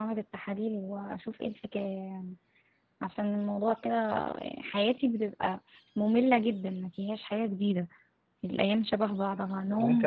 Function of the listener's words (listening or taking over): taking over